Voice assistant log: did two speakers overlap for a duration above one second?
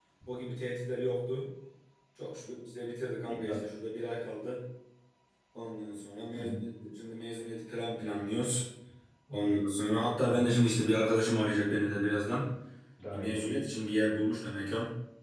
No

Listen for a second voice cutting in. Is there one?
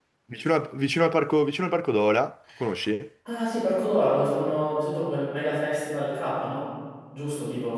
No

